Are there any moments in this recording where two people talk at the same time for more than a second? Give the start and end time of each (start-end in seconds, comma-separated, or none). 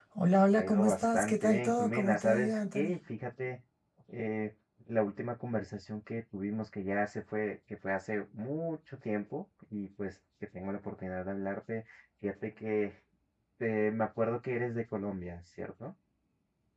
0.5-3.0